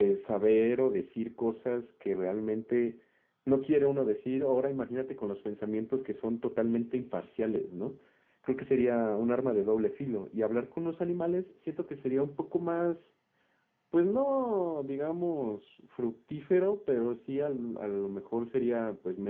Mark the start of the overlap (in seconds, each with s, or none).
none